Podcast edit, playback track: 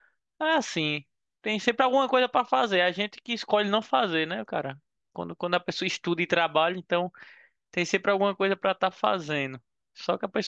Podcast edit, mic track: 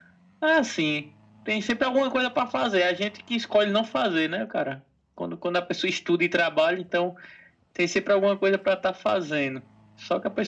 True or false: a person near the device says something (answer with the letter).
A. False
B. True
A